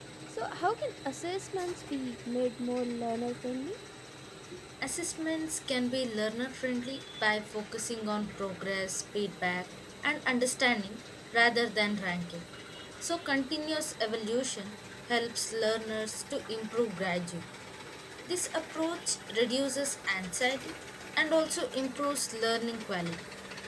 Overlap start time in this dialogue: none

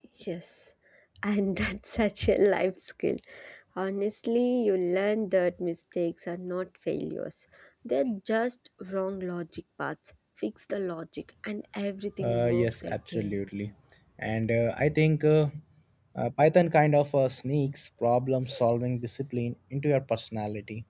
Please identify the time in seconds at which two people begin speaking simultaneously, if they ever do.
12.2 s

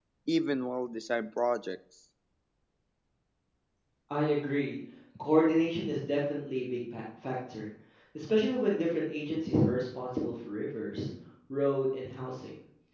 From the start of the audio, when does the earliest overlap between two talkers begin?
none

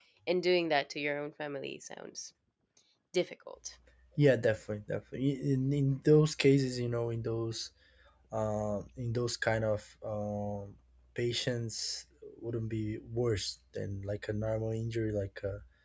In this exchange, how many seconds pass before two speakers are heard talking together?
none

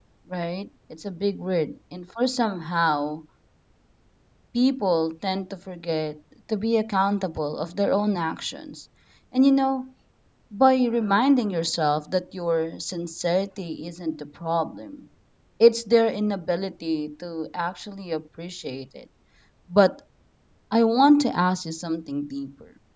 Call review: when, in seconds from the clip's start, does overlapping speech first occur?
none

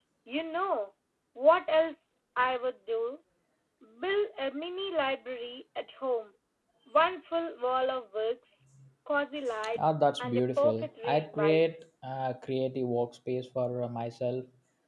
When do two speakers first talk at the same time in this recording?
9.8 s

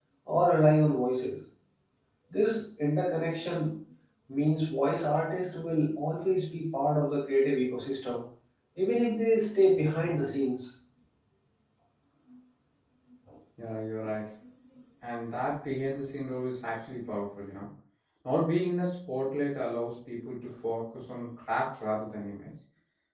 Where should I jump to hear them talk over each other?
none

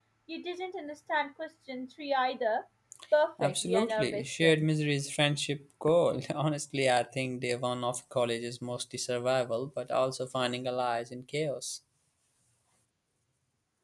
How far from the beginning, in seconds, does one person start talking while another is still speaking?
3.4 s

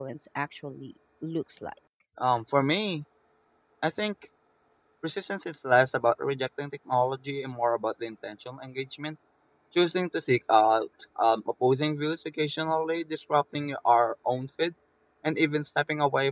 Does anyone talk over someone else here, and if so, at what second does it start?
none

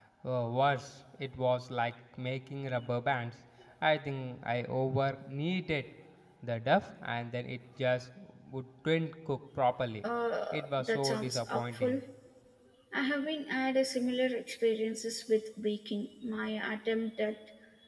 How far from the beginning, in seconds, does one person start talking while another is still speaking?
10.5 s

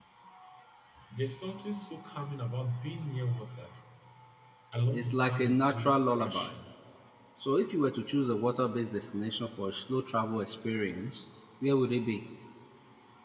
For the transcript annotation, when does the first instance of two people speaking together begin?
4.9 s

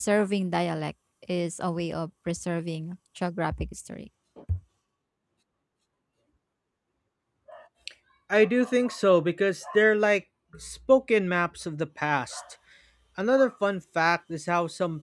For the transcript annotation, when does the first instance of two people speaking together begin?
none

